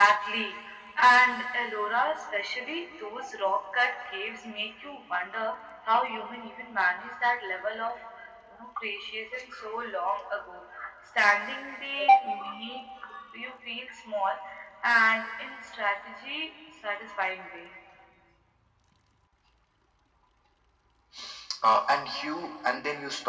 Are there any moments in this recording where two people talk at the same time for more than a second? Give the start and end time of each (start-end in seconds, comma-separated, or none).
none